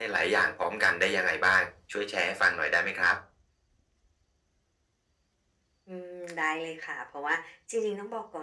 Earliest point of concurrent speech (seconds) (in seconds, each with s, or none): none